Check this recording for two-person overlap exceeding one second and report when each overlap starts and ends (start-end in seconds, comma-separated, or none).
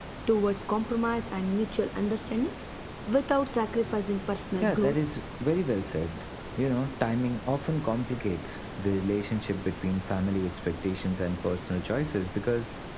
none